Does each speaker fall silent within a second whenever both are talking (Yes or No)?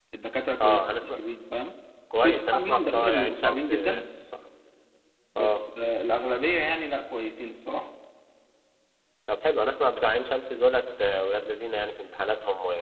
No